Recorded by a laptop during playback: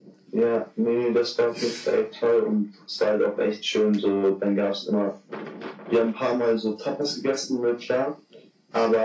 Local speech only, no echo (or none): none